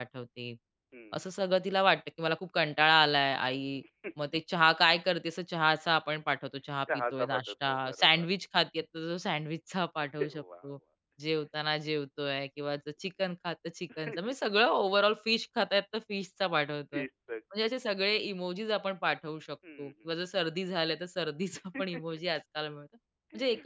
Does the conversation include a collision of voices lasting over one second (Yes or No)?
Yes